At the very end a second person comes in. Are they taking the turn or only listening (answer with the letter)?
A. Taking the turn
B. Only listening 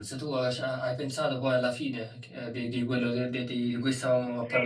A